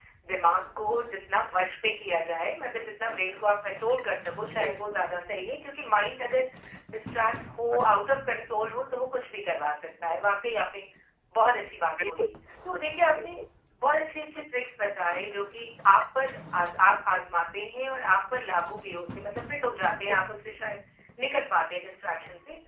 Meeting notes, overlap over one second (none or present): none